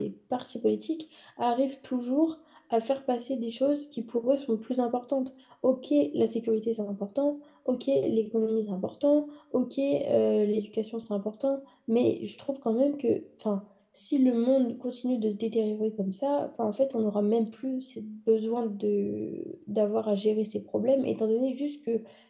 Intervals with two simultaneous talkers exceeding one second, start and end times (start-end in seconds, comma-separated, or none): none